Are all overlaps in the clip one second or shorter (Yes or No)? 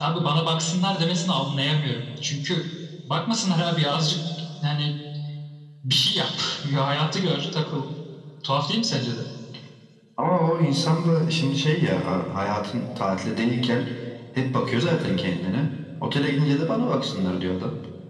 Yes